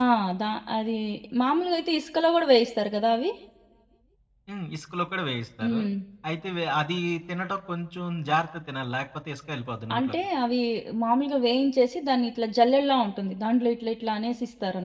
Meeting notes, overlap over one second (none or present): none